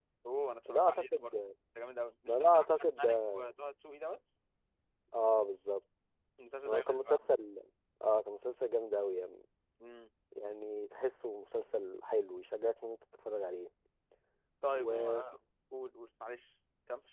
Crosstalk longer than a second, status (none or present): present